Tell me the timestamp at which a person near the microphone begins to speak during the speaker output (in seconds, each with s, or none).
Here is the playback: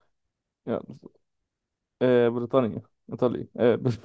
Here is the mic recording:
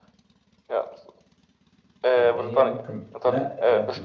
2.2 s